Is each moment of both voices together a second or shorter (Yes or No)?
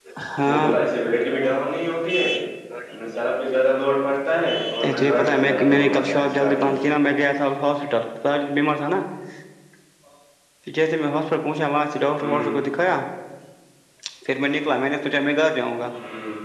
No